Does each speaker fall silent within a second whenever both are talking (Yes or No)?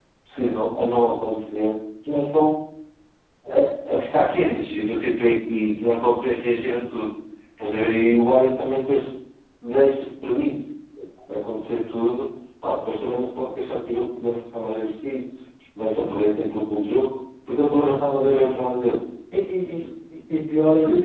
Yes